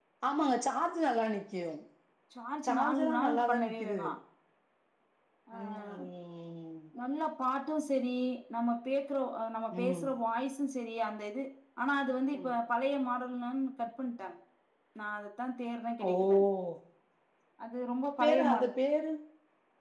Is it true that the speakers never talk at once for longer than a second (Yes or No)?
No